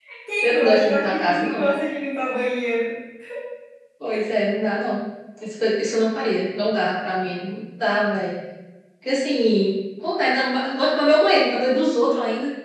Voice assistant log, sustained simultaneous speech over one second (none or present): present